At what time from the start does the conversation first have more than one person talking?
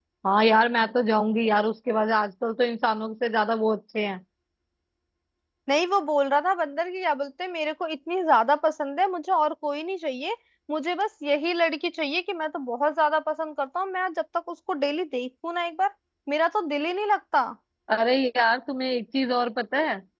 none

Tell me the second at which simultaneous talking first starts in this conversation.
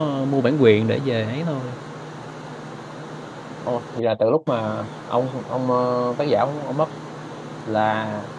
none

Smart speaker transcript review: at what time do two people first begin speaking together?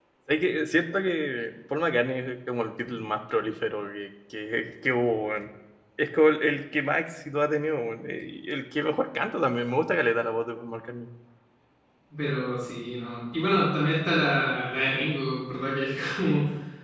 none

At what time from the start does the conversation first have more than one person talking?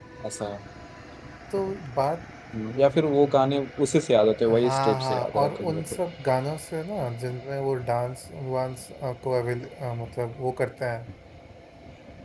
4.5 s

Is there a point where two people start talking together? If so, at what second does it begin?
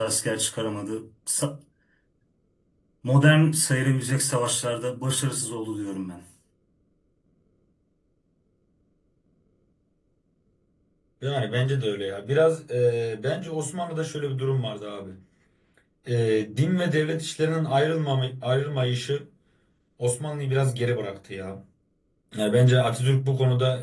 none

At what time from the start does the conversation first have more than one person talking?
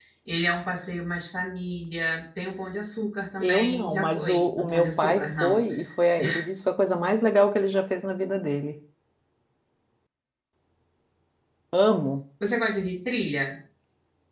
3.4 s

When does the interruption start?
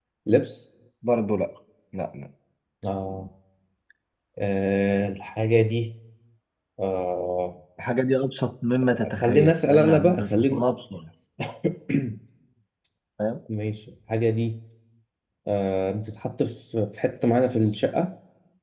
9.2 s

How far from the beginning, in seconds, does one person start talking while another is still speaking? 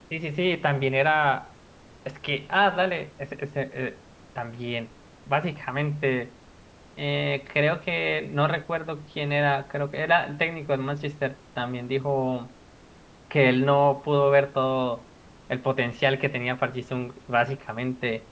none

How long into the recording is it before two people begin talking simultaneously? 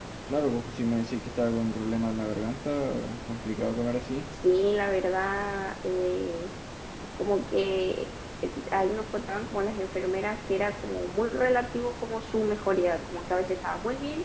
none

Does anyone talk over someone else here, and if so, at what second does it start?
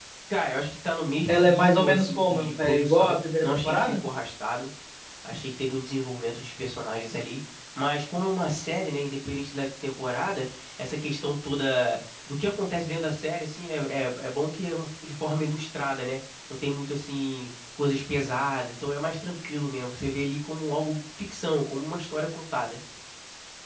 1.3 s

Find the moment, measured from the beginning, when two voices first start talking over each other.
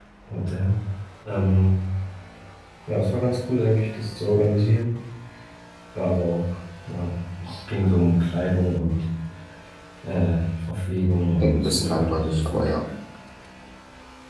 11.4 s

